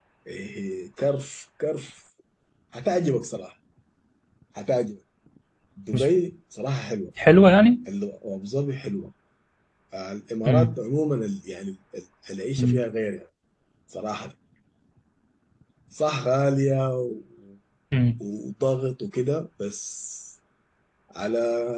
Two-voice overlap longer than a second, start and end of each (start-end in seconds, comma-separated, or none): none